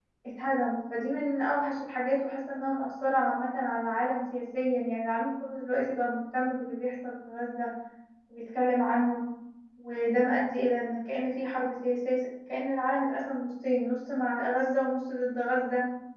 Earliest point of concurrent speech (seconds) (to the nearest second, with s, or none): none